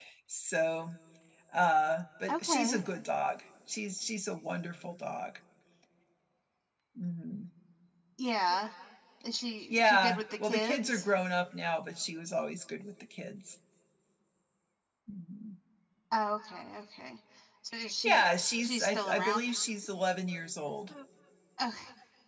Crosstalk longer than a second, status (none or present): present